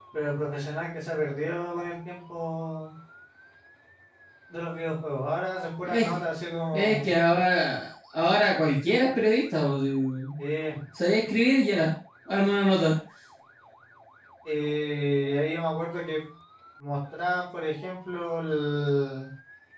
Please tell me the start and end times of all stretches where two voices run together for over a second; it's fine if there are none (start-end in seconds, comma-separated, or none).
none